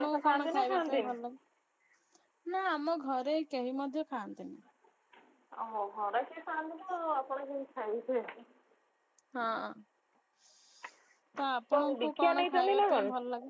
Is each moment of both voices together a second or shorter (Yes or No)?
No